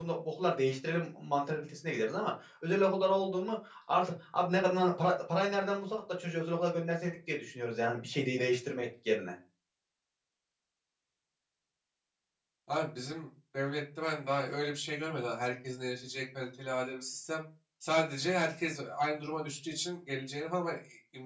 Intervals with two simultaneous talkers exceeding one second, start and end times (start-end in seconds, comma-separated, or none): none